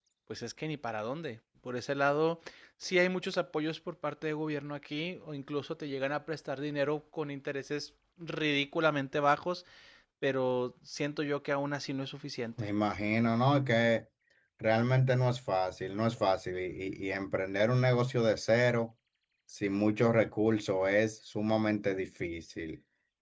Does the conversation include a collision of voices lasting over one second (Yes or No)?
No